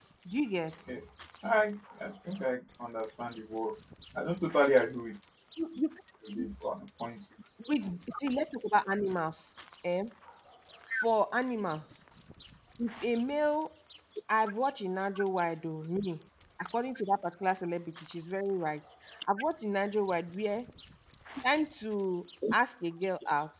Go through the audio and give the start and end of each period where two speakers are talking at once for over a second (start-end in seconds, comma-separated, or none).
none